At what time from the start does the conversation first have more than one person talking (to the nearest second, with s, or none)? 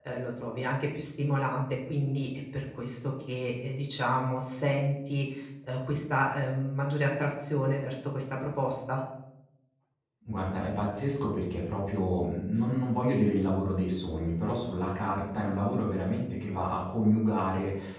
none